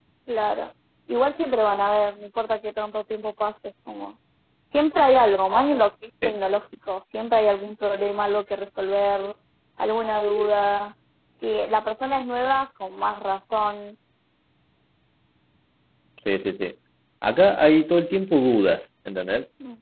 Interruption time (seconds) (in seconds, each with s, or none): none